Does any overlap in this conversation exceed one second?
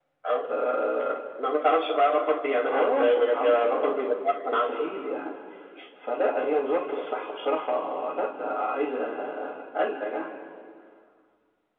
Yes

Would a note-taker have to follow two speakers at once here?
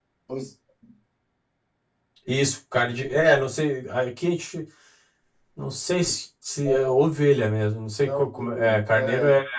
Yes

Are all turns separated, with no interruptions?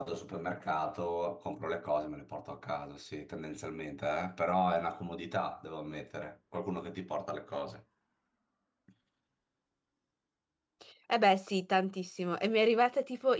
Yes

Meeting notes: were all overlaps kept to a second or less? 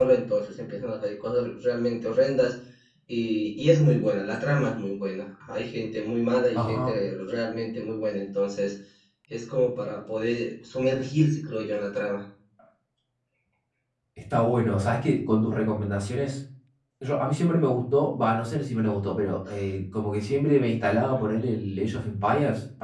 Yes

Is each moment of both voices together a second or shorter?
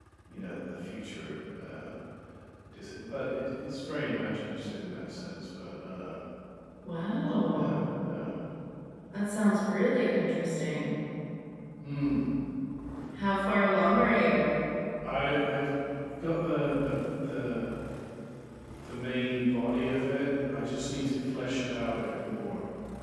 Yes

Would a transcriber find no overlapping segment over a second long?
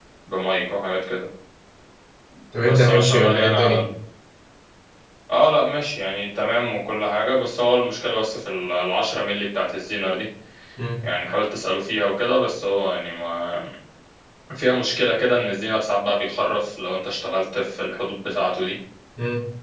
No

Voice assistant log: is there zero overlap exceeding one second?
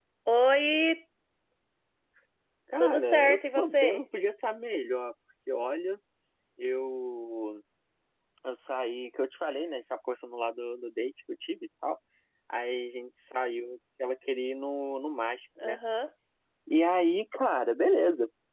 No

